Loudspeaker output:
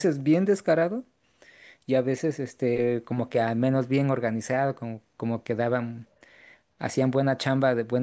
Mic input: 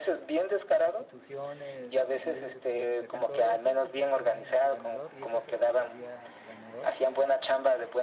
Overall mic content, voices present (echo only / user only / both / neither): both